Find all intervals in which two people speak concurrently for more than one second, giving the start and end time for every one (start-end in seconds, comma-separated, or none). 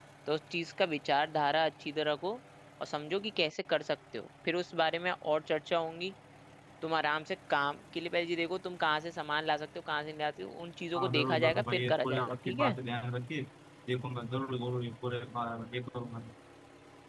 10.9-12.8